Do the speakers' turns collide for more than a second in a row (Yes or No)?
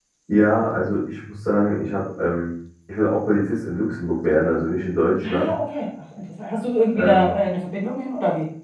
No